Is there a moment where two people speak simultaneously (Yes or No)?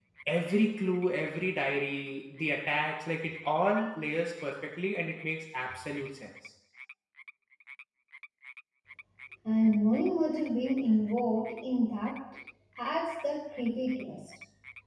No